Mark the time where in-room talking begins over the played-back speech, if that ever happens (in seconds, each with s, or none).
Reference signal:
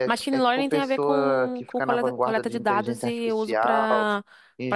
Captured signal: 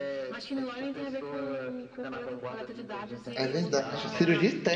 3.3 s